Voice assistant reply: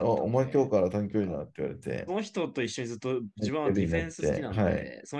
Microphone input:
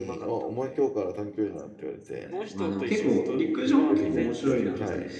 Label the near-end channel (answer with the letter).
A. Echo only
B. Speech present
B